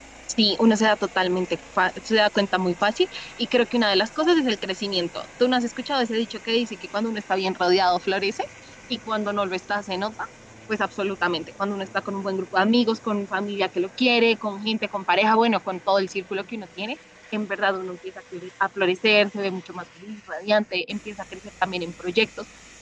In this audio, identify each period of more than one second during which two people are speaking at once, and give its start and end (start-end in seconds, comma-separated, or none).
none